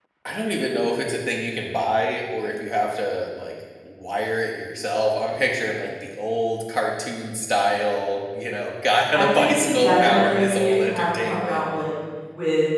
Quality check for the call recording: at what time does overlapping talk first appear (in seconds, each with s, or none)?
9.1 s